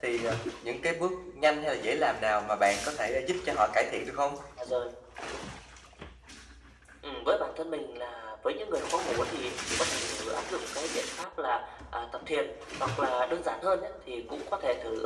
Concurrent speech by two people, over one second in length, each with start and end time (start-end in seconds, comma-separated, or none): none